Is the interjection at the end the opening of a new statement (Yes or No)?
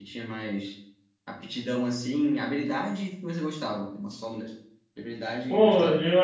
Yes